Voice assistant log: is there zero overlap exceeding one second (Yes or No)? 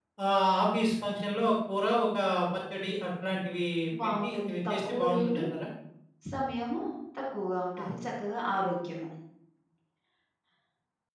No